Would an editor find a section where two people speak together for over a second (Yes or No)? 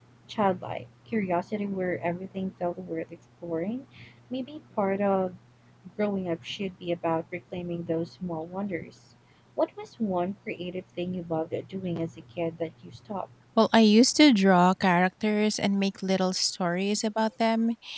No